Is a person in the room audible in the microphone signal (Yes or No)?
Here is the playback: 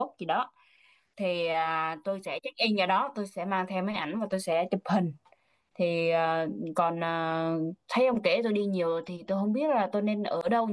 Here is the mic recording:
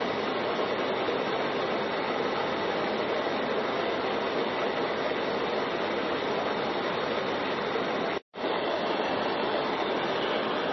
No